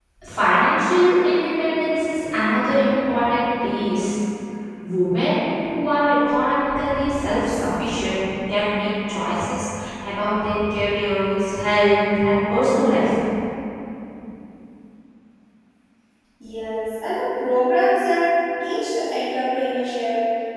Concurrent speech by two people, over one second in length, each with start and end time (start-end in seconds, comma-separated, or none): none